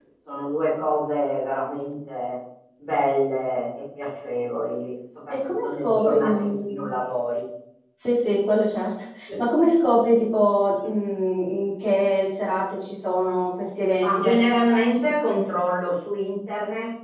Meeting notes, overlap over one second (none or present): present